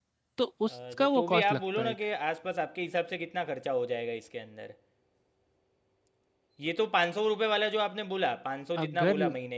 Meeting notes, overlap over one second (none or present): present